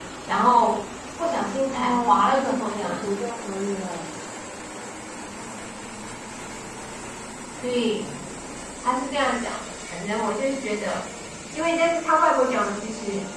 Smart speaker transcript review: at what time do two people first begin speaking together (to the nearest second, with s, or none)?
2 s